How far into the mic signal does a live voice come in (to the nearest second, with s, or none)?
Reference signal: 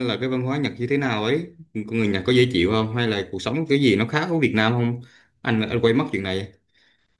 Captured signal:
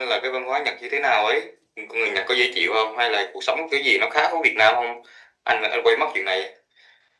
none